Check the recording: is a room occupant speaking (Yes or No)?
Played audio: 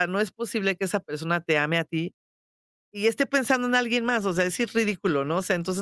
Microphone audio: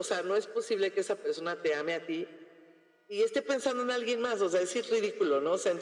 No